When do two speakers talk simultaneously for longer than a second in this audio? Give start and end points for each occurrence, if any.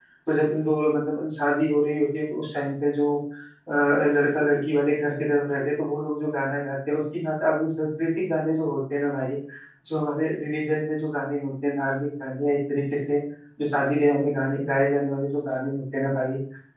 none

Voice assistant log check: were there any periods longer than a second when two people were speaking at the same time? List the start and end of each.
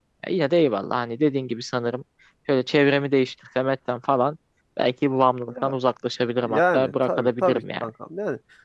6.4-7.9

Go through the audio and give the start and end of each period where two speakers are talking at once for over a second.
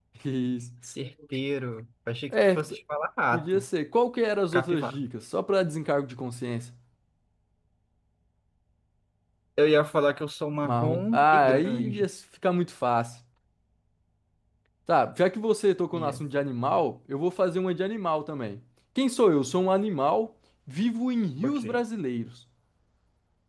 10.6-12.1

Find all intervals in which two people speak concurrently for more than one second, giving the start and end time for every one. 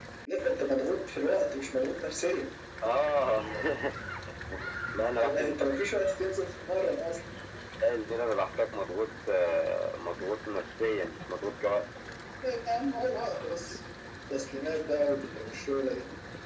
none

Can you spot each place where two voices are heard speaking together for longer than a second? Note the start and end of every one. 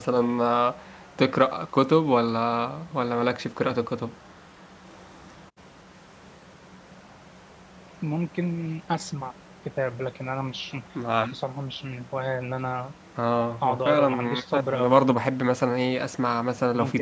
13.6-14.9

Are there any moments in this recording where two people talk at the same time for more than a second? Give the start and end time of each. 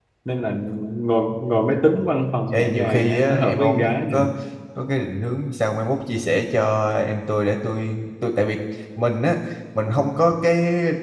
2.5-4.2

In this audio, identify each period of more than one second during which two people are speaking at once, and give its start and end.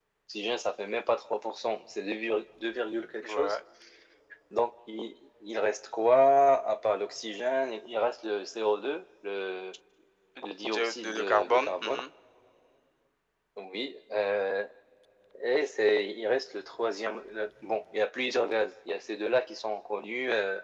10.7-12.0

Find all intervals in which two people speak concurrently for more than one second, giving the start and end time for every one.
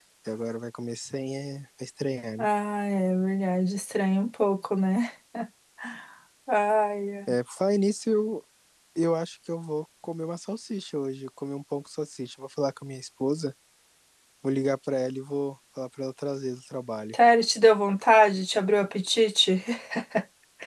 none

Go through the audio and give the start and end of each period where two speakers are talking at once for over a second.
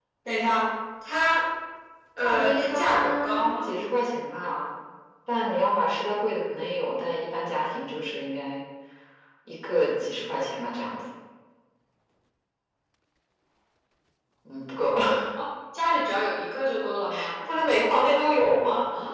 2.2-3.7

